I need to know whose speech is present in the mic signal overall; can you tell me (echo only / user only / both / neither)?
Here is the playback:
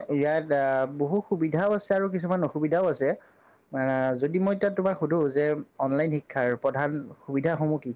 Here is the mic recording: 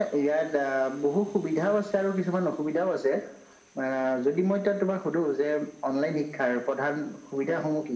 echo only